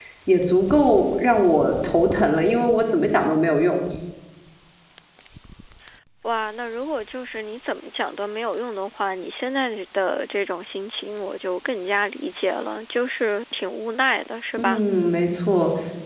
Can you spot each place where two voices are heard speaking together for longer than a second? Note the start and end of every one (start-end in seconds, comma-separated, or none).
none